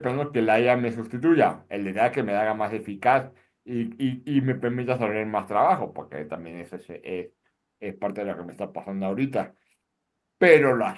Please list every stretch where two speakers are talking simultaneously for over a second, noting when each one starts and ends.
none

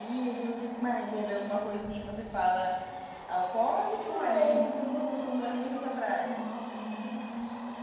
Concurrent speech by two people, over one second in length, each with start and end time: 4.1-6.4

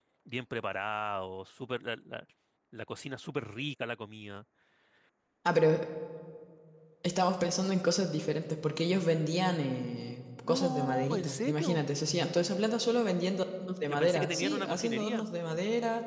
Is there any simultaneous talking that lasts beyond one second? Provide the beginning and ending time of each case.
10.5-11.8, 13.9-15.2

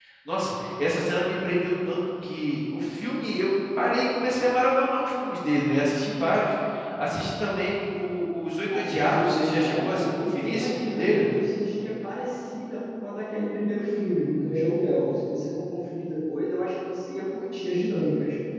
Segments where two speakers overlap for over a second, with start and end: 8.7-11.3

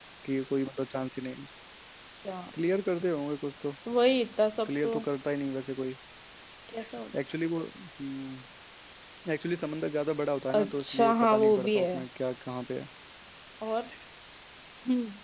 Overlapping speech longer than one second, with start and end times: 10.6-11.9

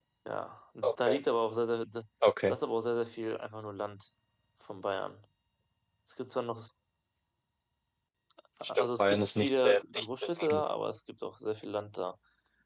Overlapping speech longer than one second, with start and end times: 8.7-10.6

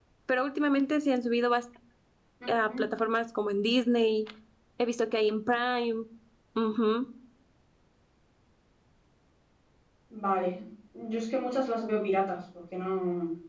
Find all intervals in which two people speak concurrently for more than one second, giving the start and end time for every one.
none

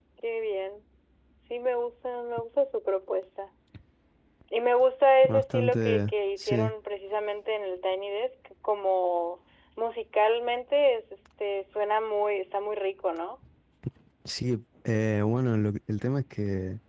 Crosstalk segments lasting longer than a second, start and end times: 5.2-6.7

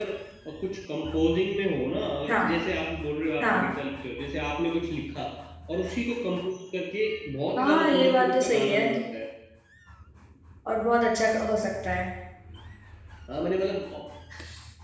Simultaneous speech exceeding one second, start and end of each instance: 7.5-8.8

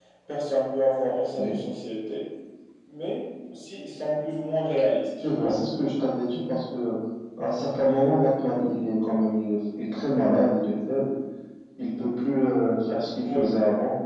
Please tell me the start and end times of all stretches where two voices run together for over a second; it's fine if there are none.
none

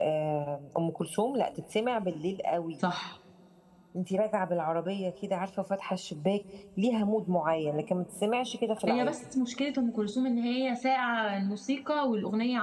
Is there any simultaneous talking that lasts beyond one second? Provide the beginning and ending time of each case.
none

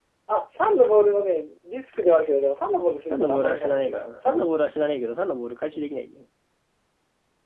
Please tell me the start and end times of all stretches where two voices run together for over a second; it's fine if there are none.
3.1-4.4

